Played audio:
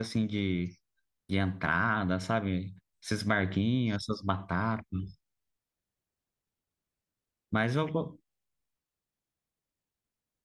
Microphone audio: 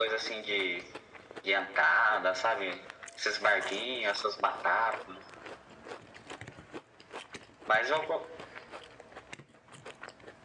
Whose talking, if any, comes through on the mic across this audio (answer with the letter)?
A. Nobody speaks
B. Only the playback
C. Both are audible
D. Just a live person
B